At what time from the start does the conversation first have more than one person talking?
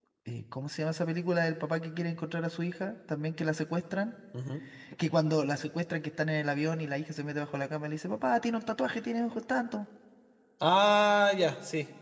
none

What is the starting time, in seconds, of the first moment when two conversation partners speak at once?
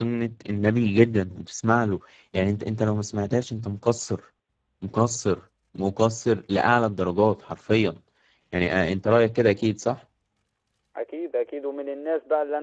none

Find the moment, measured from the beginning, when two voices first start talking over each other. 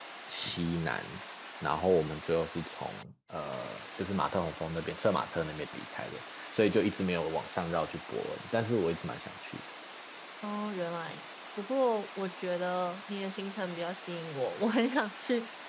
none

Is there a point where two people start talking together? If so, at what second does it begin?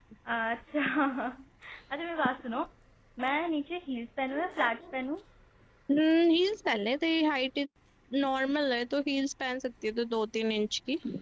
none

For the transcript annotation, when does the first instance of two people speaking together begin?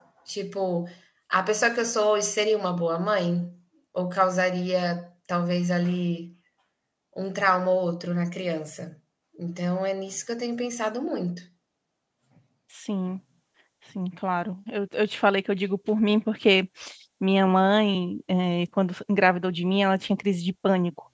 none

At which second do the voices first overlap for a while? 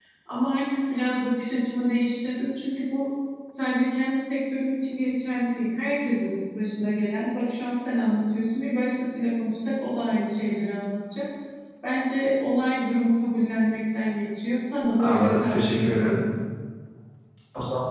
15 s

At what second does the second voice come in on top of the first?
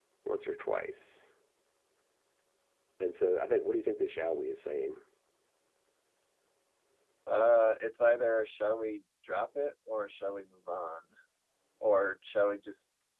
none

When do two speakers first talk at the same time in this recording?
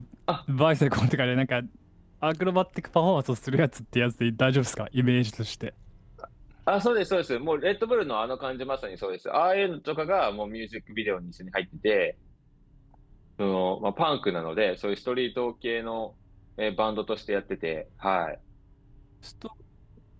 none

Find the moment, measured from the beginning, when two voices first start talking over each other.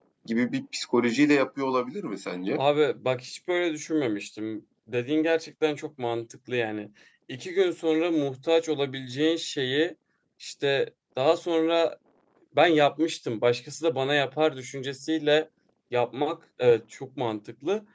none

